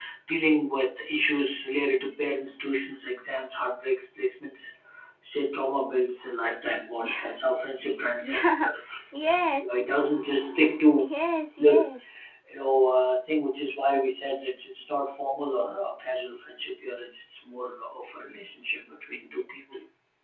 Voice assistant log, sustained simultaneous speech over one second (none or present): none